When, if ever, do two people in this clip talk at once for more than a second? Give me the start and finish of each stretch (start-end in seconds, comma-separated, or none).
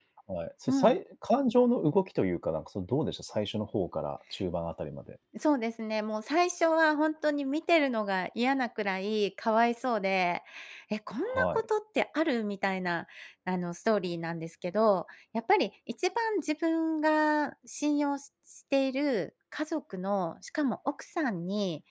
none